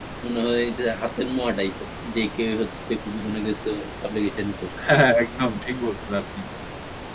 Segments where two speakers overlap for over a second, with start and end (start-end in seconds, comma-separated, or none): none